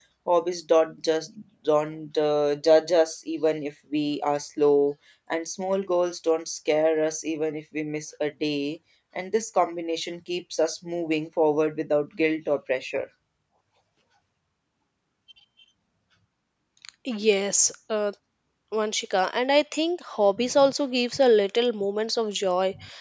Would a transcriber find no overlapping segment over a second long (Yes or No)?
Yes